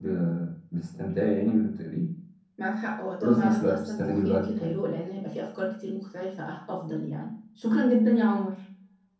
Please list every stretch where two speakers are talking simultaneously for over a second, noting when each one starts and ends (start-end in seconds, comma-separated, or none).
3.2-4.7